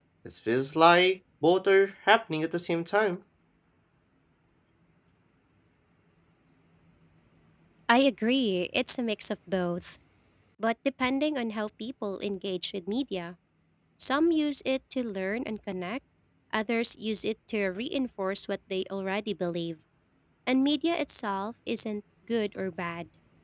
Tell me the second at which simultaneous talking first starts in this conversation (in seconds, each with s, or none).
none